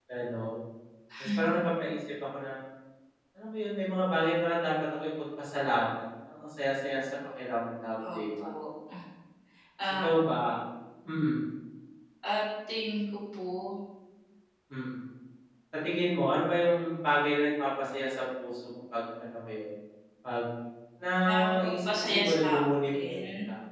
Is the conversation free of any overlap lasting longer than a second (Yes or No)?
No